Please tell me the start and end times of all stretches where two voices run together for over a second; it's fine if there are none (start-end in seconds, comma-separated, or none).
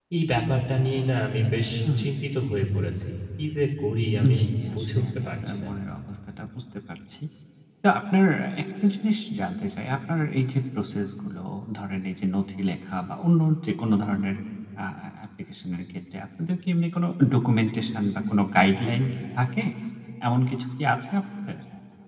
4.4-5.7